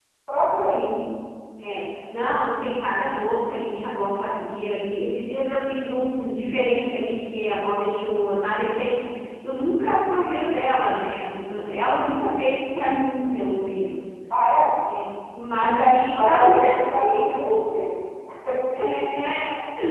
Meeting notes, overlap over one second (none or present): present